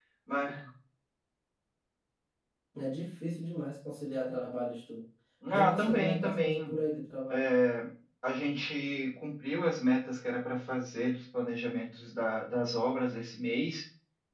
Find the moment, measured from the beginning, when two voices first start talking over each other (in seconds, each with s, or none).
5.5 s